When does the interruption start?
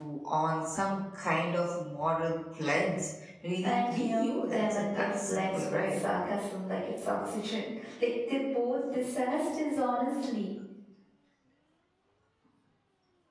3.6 s

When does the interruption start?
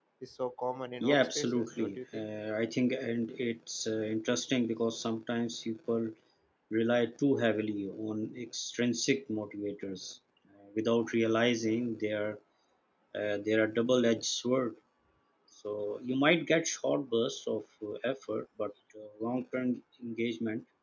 1.0 s

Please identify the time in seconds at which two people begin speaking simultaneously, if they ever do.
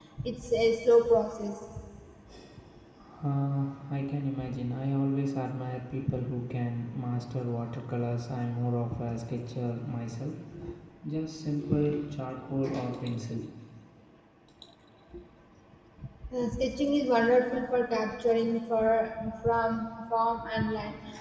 none

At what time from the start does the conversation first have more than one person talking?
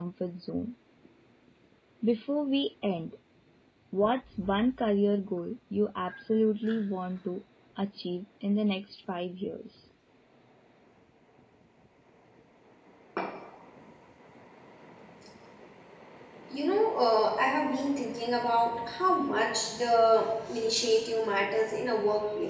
none

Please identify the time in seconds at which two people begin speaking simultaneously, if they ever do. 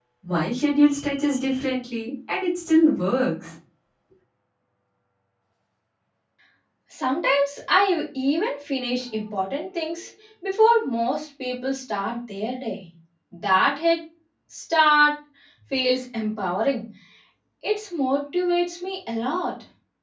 none

